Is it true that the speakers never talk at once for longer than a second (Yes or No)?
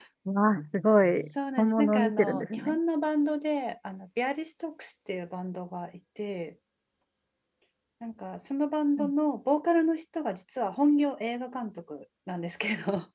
No